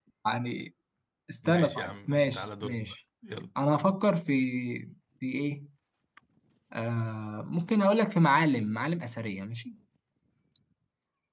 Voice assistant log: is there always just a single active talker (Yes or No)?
No